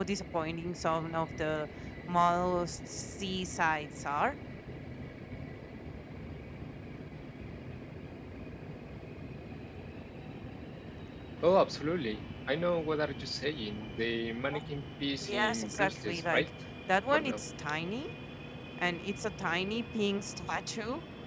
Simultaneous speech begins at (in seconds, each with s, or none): 15.3 s